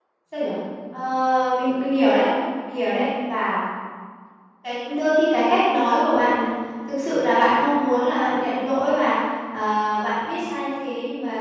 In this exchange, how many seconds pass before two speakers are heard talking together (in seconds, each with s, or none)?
none